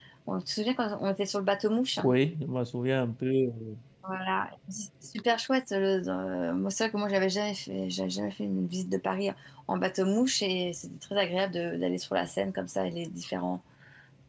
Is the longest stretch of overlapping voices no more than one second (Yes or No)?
Yes